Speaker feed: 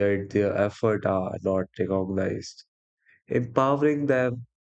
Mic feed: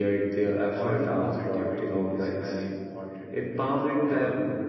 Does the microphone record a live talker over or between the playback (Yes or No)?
Yes